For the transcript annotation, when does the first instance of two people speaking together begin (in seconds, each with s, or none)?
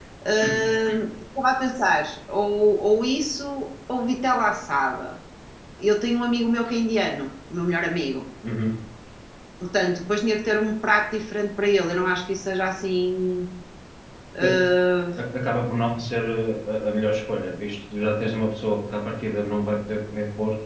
none